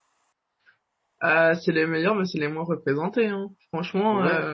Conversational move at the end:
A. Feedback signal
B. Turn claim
B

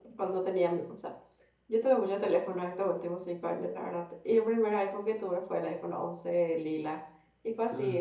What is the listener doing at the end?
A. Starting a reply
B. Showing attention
B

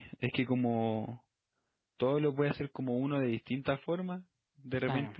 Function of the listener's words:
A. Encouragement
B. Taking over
A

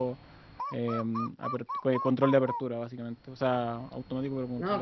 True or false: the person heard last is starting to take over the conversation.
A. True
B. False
A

